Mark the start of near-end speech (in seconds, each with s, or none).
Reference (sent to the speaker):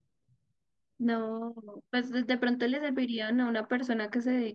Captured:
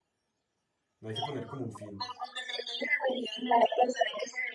1.0 s